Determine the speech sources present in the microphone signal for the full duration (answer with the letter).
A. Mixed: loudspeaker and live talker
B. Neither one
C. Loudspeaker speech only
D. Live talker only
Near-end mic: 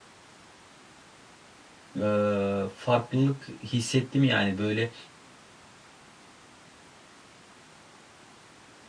D